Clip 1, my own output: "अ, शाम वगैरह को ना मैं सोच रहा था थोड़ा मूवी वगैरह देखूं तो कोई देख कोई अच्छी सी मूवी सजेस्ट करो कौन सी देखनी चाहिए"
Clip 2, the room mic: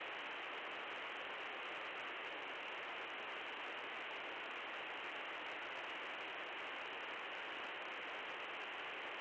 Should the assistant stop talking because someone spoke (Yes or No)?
No